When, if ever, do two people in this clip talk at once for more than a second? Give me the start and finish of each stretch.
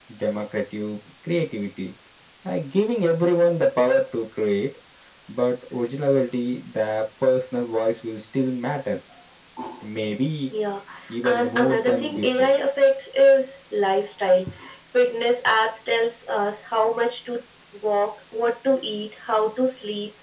11.2-12.5

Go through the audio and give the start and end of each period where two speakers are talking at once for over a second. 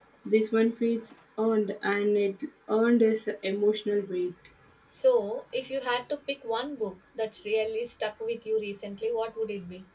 none

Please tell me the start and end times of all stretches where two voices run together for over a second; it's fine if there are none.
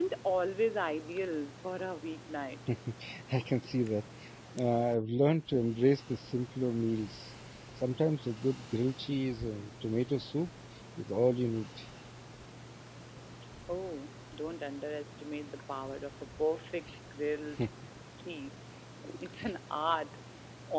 none

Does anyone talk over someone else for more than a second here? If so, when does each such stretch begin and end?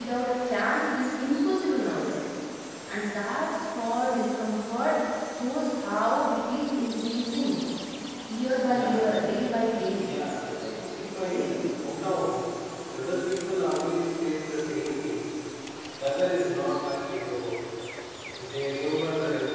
none

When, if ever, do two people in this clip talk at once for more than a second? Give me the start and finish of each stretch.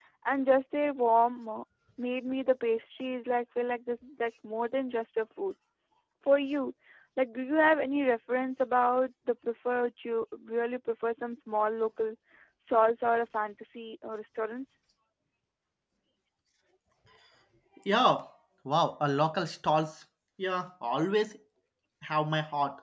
none

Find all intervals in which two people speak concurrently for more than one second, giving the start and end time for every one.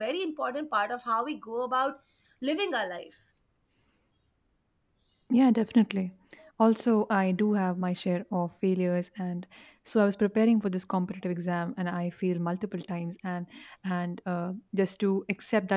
none

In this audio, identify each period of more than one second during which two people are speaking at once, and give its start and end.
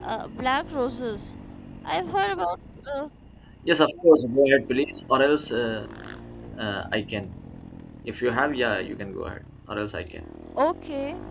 none

